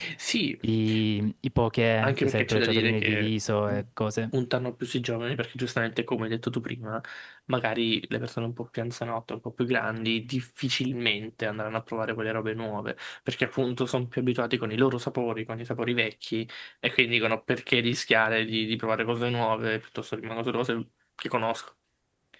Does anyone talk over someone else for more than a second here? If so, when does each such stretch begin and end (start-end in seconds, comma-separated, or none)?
2.0-3.3